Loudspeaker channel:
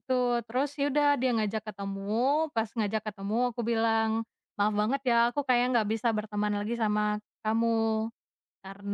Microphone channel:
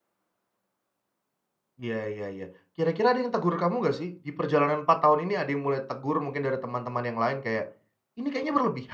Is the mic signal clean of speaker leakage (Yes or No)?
Yes